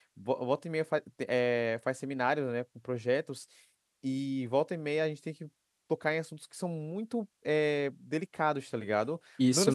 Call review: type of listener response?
taking over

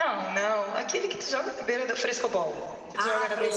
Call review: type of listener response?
taking over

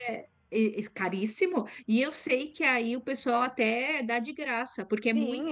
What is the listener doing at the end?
taking over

